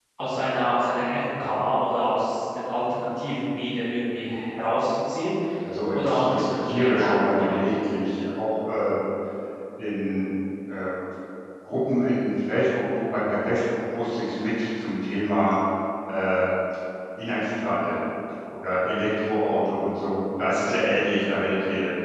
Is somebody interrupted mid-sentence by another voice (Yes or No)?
Yes